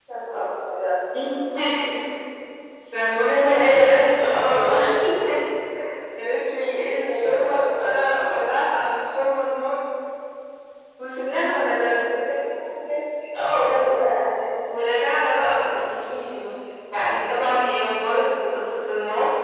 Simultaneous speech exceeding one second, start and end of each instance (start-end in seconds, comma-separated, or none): 3.4-4.8